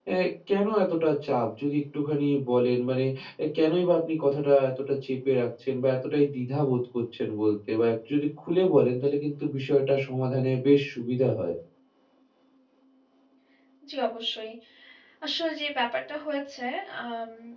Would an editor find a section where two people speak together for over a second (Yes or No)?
No